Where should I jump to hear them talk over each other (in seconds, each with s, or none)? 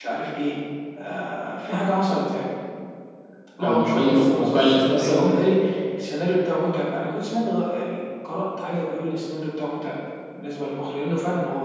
3.6 s